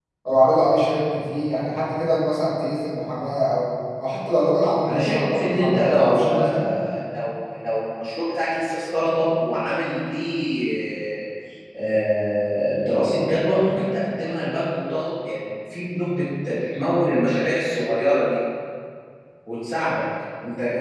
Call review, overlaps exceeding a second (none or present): present